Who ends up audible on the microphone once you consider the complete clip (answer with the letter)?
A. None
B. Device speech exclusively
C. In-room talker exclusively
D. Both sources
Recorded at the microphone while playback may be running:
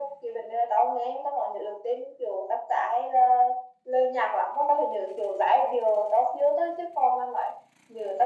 B